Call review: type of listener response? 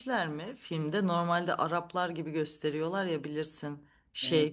listening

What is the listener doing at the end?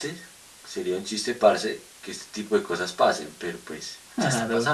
listening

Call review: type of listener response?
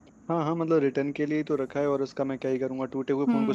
taking over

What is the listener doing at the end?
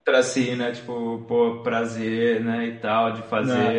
listening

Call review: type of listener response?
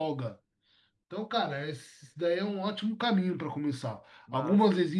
listening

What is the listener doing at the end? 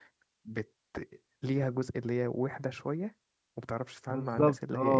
taking over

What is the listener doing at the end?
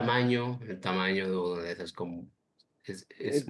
taking over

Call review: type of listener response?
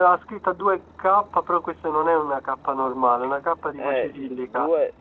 taking over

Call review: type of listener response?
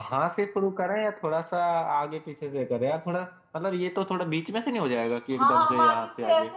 taking over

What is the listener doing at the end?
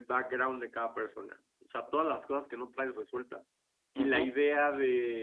listening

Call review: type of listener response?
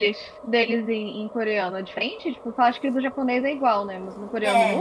taking over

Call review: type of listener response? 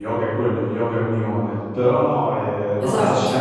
listening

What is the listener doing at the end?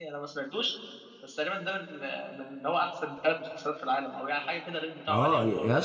taking over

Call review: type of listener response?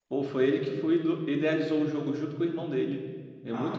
taking over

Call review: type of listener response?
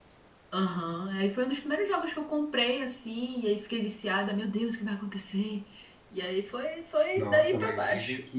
taking over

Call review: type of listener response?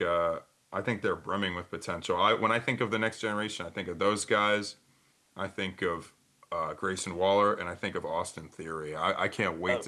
listening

